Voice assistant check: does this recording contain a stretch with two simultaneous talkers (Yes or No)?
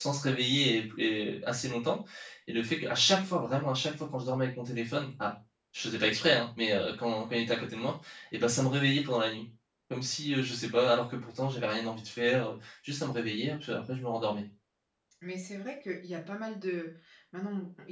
No